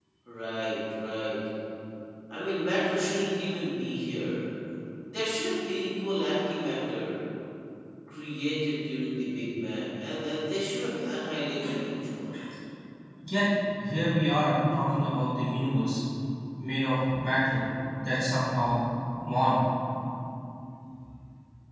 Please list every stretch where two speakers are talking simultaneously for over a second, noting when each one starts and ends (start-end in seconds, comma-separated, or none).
none